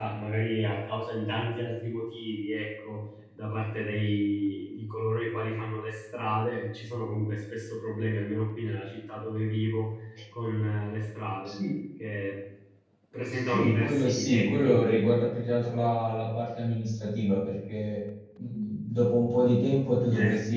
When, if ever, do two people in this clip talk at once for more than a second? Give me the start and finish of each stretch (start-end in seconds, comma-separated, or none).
13.3-14.8